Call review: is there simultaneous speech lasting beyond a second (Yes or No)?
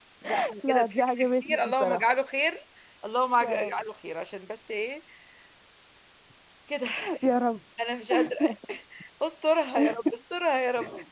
Yes